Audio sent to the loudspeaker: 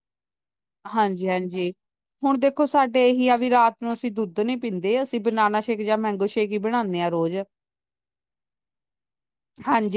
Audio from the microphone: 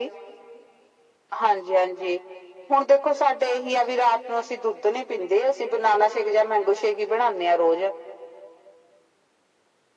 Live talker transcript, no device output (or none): none